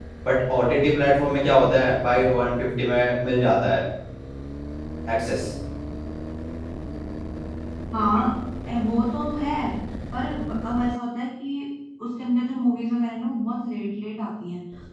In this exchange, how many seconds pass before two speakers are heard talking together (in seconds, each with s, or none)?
none